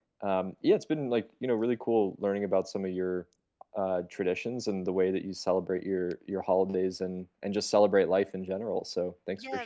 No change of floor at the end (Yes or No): No